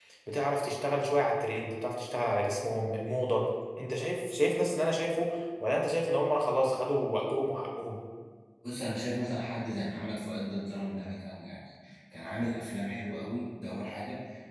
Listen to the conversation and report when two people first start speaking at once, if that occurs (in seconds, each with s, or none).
none